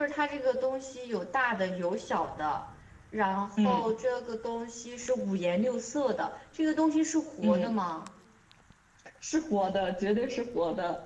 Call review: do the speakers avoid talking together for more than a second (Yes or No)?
Yes